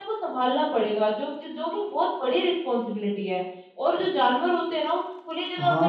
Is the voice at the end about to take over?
No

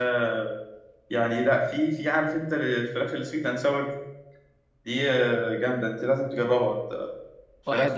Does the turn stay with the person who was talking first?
No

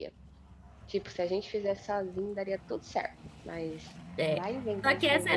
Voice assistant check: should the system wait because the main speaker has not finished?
No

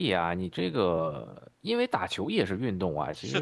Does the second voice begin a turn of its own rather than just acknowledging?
Yes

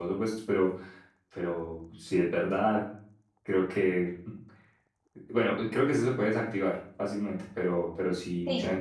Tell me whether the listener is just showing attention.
Yes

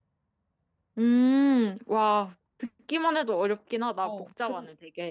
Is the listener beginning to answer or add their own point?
Yes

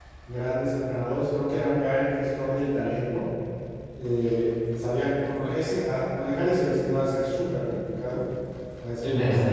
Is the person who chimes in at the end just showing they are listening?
No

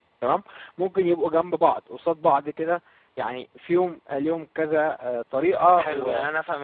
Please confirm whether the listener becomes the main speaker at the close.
Yes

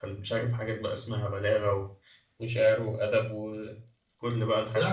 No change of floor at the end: No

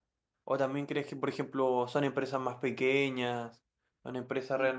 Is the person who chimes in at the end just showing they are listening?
Yes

